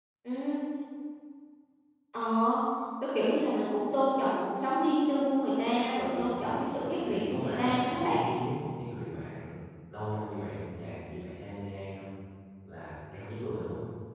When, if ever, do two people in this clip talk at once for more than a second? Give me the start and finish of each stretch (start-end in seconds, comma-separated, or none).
7.0-8.3